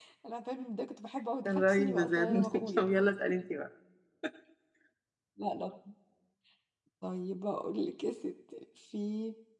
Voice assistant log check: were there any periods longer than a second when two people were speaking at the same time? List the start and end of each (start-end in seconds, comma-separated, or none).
1.4-2.8